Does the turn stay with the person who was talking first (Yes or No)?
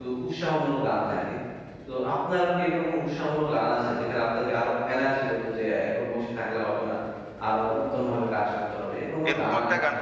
No